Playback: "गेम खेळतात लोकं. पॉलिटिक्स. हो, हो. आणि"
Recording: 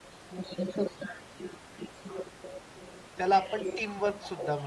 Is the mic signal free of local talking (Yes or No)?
No